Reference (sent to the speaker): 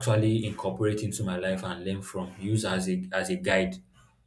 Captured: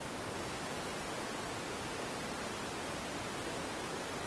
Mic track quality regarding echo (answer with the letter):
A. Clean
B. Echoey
A